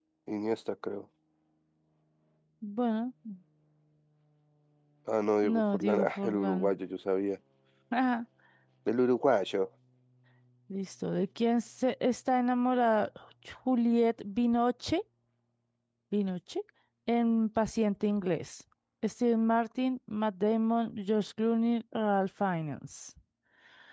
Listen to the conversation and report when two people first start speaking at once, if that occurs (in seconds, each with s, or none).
5.4 s